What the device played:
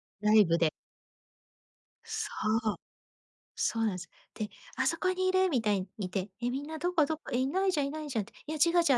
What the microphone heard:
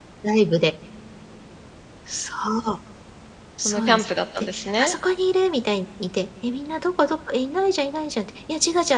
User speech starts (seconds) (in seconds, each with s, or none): 3.6 s